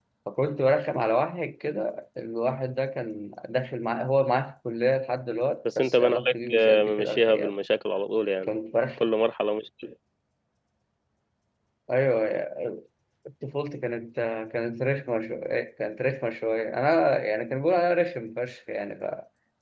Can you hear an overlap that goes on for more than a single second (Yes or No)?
Yes